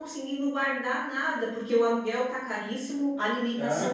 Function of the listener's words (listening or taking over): taking over